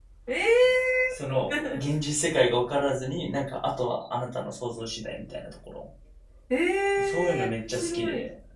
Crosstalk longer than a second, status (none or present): present